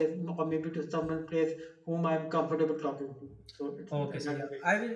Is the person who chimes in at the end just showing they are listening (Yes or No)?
No